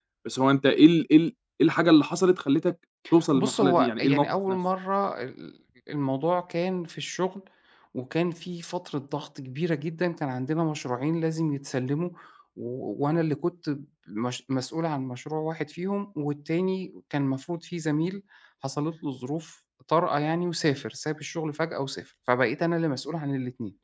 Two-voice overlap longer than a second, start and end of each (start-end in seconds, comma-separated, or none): 3.3-4.6